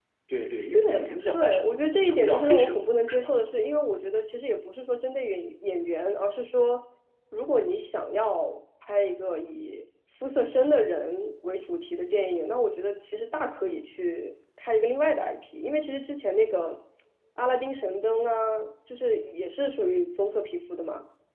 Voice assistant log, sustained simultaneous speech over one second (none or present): present